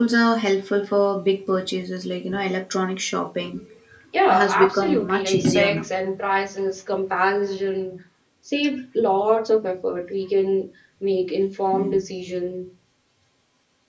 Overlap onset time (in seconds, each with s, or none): 4.3 s